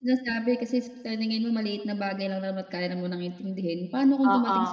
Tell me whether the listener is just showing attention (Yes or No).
Yes